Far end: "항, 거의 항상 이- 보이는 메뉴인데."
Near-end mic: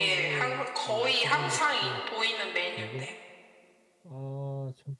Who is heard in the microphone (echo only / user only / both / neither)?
both